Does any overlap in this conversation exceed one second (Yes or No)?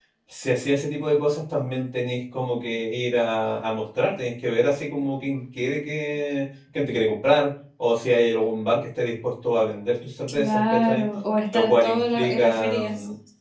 Yes